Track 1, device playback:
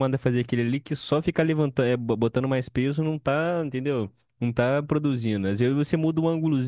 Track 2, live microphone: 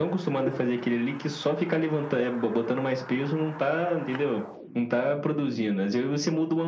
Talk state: echo only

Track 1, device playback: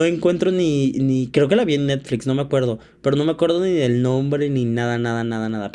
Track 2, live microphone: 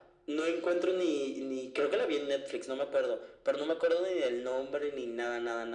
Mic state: echo only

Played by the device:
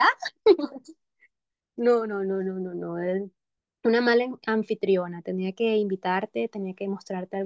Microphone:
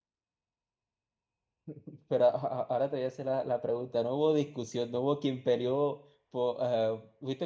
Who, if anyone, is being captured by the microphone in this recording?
user only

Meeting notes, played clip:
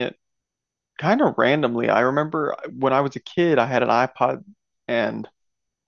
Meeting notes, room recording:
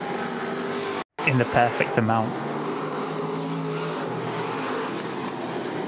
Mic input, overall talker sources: user only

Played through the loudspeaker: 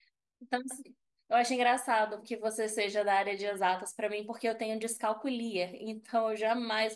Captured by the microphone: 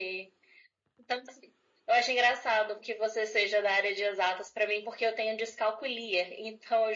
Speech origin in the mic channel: echo only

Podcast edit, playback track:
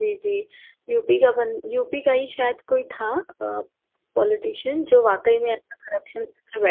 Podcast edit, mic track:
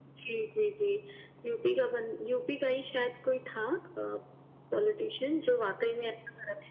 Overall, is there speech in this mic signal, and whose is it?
echo only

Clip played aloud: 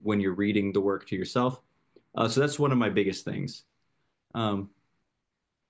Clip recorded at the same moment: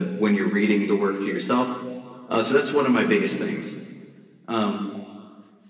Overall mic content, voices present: echo only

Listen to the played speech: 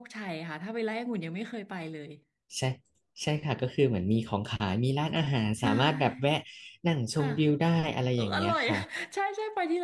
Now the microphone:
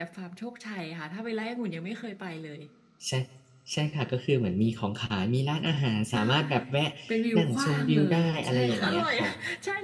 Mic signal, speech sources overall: both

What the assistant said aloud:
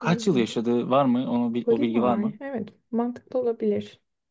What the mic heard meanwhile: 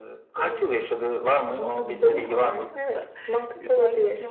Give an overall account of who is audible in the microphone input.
both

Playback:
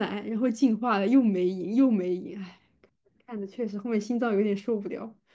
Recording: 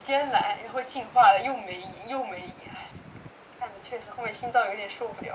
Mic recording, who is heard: echo only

